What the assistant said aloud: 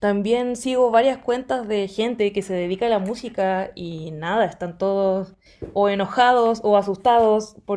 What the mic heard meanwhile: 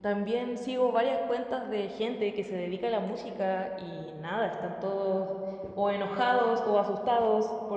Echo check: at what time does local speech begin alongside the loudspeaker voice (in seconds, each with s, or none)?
none